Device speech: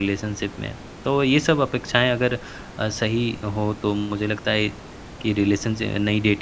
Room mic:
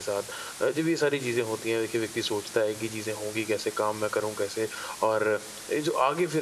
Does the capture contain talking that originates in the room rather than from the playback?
Yes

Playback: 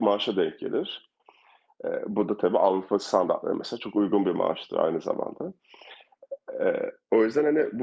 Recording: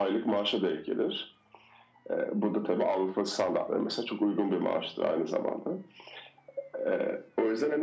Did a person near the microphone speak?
No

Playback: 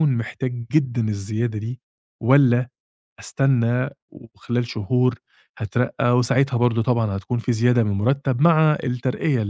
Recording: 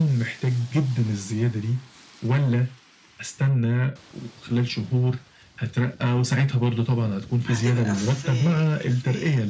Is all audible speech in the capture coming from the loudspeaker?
No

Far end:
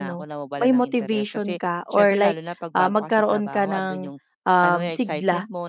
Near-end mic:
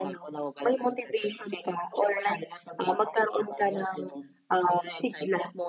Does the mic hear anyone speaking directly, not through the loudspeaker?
No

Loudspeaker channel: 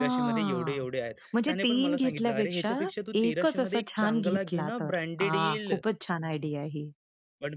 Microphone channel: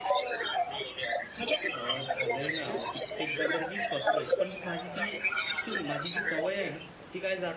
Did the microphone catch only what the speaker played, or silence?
No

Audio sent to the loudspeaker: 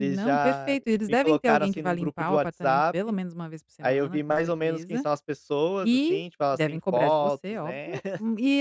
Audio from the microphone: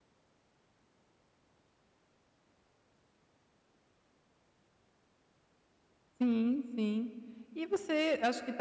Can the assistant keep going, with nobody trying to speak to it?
No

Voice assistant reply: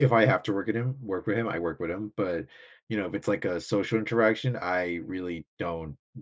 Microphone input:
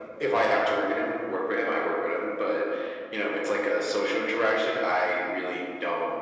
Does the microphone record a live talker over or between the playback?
No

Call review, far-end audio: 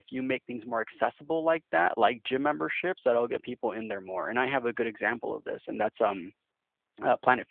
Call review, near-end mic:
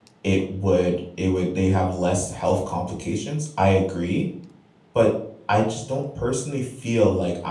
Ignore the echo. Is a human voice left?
Yes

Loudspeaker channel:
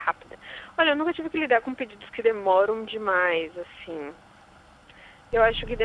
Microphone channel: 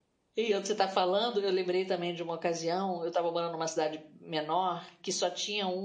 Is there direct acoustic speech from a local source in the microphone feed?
Yes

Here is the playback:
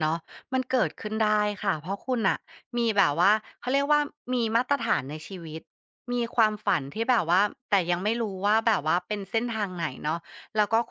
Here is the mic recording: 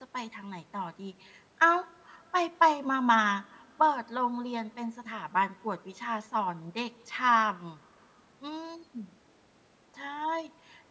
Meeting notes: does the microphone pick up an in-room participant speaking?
Yes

